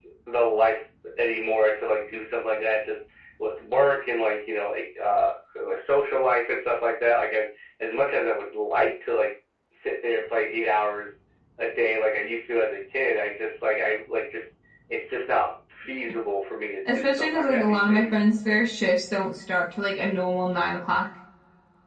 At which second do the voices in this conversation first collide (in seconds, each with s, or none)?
16.9 s